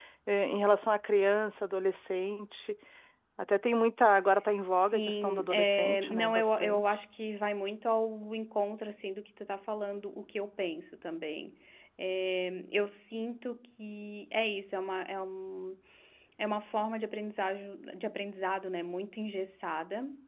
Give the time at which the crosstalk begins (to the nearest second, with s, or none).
5 s